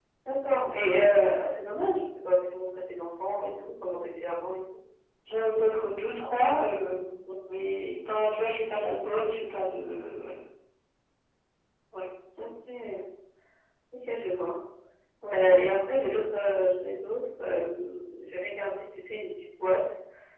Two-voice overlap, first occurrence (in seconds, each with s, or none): none